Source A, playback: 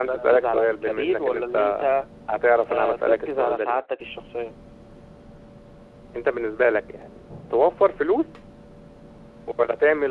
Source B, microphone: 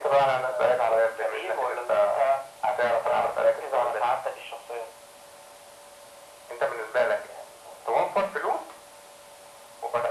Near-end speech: none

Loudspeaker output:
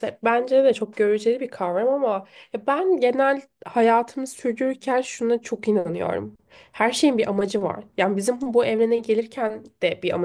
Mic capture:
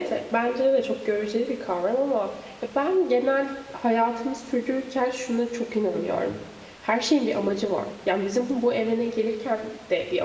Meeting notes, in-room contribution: none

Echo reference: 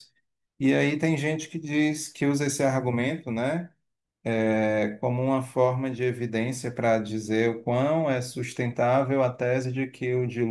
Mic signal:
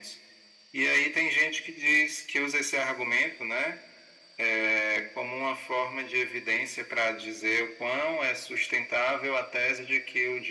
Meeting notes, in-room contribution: none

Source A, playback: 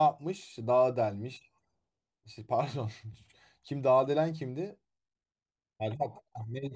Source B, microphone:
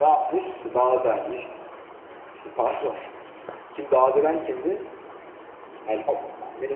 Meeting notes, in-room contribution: none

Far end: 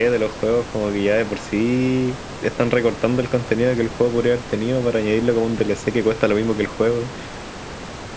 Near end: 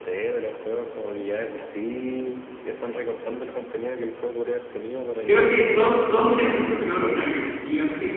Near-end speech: present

